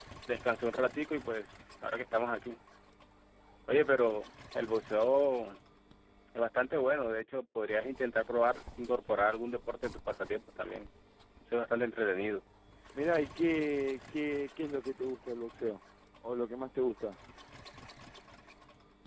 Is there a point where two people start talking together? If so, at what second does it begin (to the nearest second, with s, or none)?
none